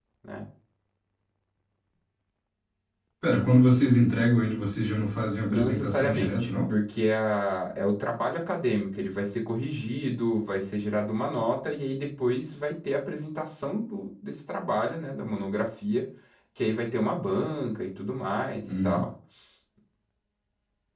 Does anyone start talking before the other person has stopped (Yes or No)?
Yes